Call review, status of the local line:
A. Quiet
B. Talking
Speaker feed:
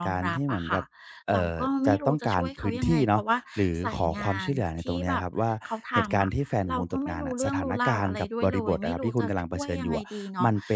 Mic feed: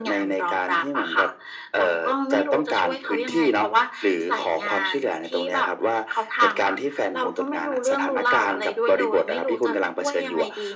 A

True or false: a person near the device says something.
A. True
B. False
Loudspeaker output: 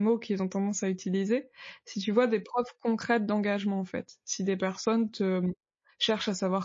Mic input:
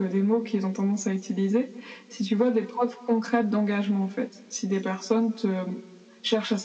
B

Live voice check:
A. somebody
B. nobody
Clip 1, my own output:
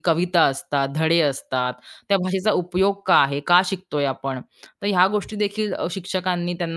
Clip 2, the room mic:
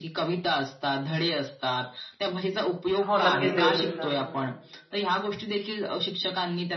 A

